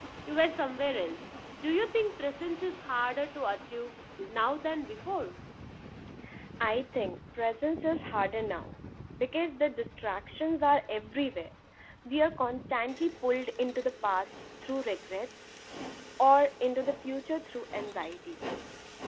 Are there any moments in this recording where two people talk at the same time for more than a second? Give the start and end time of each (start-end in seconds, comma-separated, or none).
none